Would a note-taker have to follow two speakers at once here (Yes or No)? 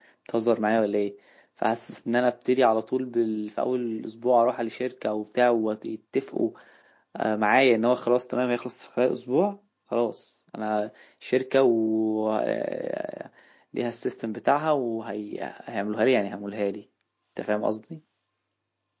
No